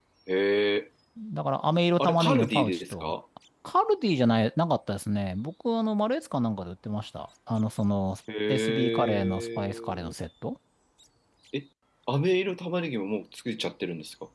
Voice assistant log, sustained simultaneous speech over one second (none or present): present